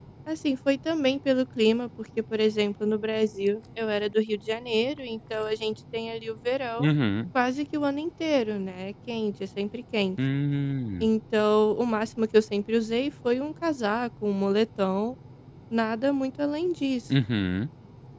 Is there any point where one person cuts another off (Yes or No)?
No